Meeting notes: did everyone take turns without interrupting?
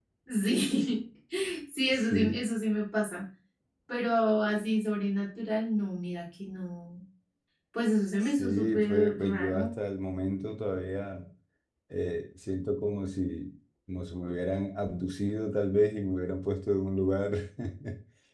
No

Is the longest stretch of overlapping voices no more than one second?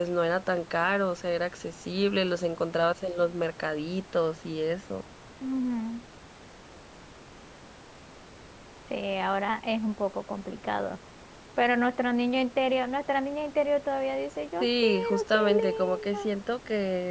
No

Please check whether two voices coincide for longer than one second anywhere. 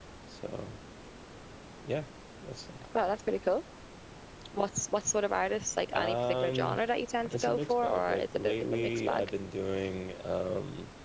Yes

